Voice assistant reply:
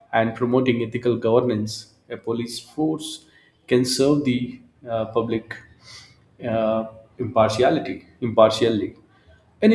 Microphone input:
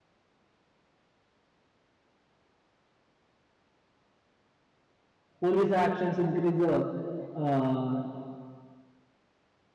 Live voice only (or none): police actions increase uh, uh,